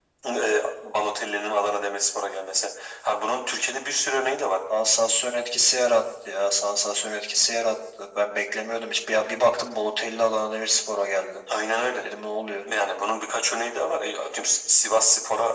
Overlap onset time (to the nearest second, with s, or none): none